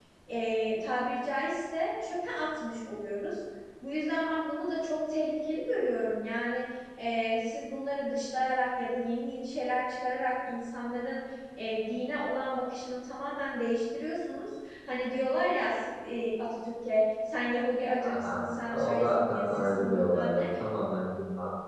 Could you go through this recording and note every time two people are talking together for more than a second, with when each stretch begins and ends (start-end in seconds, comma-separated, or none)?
18.1-20.4